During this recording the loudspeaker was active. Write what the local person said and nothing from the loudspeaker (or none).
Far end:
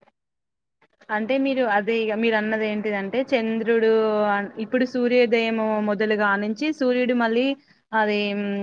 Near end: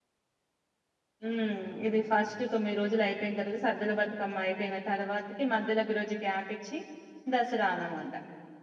ఉమ్ ఇది ఫస్ట్ తొమ్మిది రోజులు అయిపోయిన తర్వాత సద్దుల బతుకమ్మ అయిపోయిన తర్వాతకి మధ్యలో ఒక రోజు గ్యాప్ ఇచ్చి దసరా అన్నమాట